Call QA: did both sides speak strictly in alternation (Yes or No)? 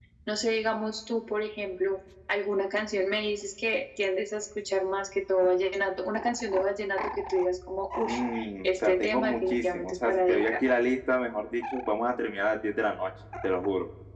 No